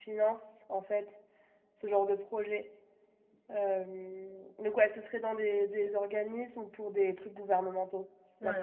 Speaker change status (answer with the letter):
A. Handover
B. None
A